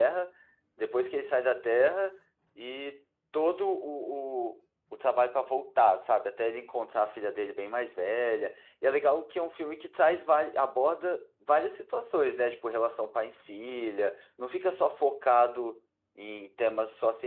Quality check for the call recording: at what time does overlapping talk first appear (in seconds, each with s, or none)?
none